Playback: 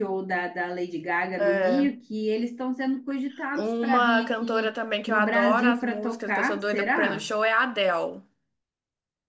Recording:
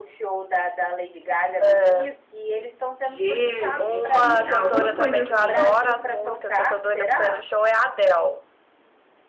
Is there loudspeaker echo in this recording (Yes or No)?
Yes